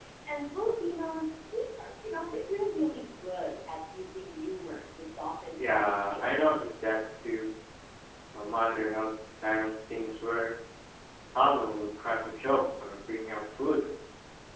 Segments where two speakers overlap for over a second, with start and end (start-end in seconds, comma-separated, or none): 5.5-6.9